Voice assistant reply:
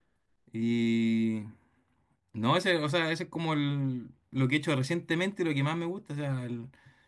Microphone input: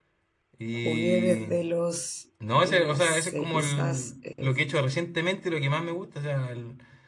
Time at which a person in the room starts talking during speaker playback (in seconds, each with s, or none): 0.7 s